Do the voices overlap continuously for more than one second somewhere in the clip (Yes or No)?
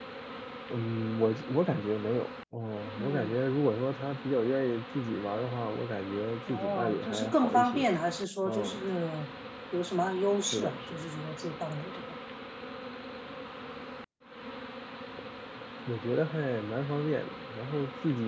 Yes